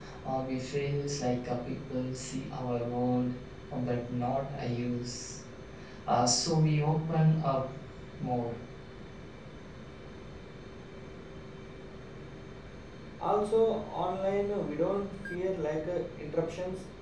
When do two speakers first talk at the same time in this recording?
none

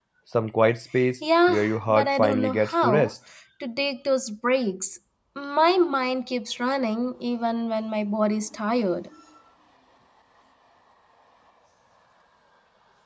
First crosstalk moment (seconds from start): 1 s

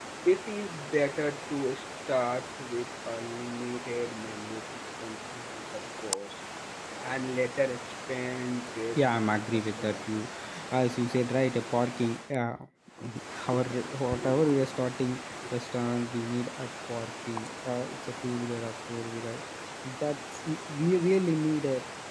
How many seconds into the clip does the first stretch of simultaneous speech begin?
9 s

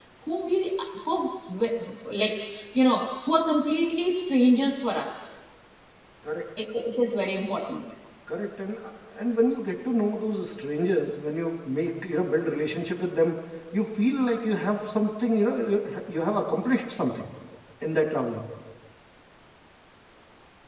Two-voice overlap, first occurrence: none

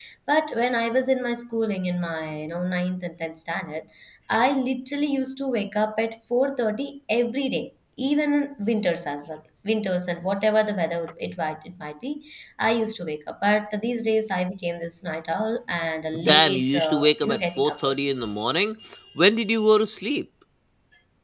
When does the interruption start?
16 s

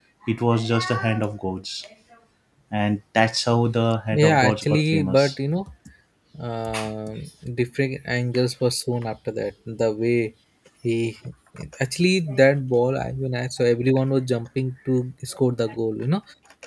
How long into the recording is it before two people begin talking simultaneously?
4 s

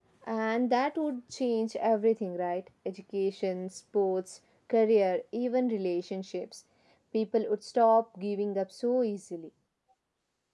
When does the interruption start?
none

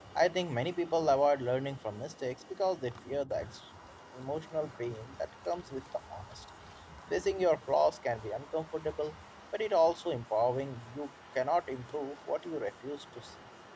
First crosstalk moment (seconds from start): none

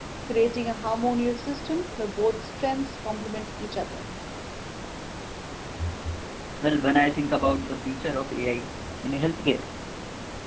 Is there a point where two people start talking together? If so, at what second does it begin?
none

